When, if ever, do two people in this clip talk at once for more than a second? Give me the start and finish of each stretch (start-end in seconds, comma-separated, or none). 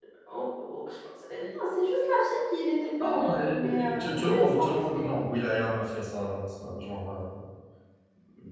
3.0-5.1